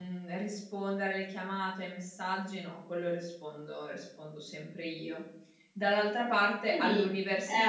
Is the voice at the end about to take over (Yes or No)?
No